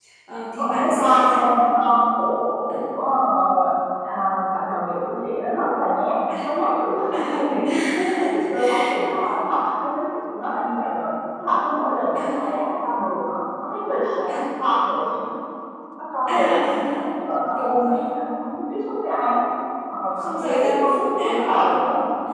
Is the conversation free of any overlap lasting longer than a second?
No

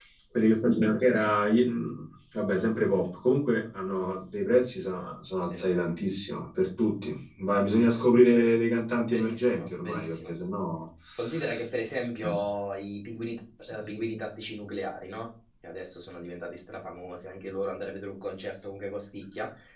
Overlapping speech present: Yes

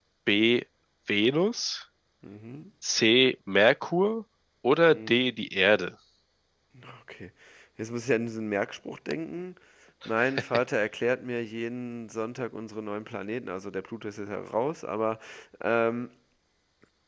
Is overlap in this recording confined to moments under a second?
Yes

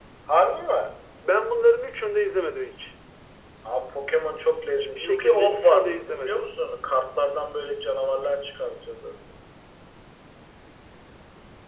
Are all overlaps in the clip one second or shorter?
No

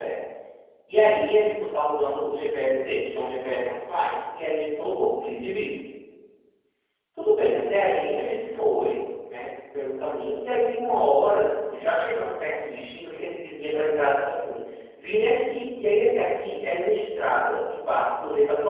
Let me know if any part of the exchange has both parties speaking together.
No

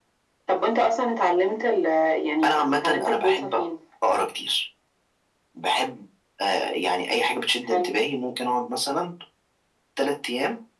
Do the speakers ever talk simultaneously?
Yes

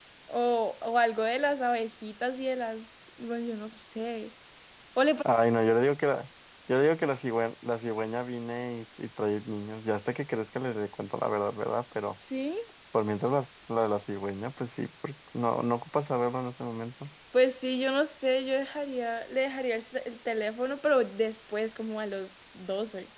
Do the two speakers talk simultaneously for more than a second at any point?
No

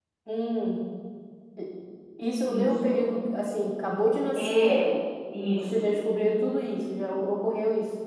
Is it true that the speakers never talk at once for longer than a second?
Yes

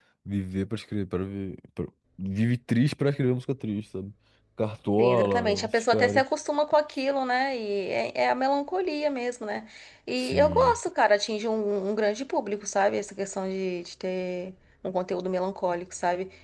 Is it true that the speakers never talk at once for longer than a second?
No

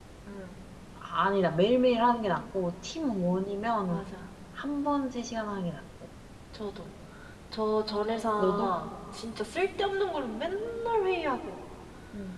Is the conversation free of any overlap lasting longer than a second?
Yes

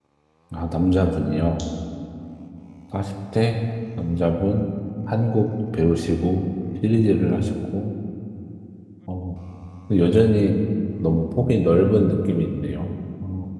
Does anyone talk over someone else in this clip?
No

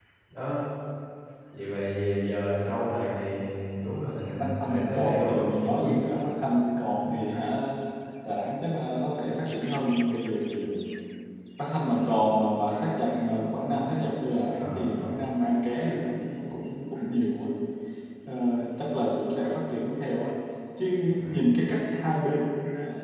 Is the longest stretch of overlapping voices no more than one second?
No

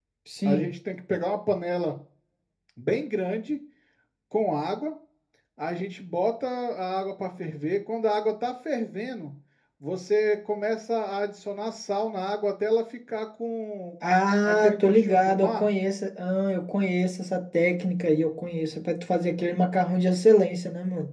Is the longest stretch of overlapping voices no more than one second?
No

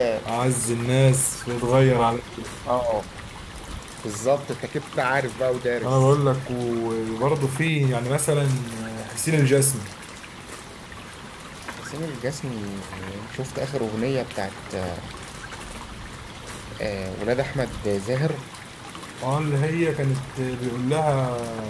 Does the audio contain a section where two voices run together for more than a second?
No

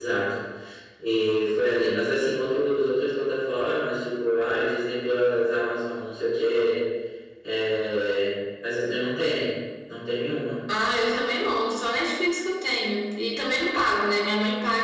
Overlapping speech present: No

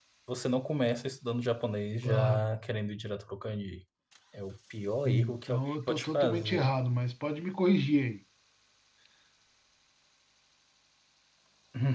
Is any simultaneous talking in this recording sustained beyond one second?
Yes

